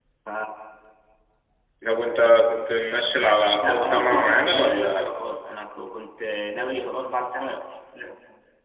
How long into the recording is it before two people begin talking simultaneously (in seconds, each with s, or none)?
3.6 s